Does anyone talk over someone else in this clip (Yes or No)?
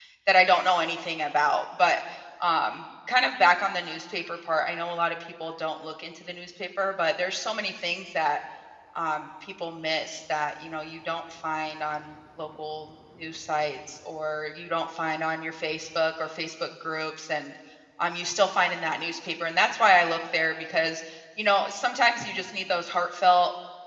No